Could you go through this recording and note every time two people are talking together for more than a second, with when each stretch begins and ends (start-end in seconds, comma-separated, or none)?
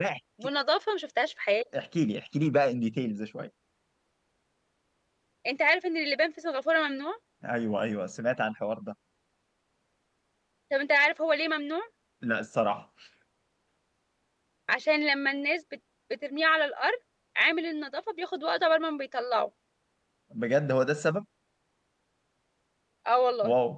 none